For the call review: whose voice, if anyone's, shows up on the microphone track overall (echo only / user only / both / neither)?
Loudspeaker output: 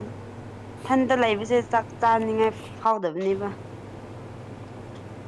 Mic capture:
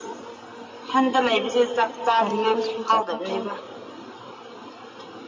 both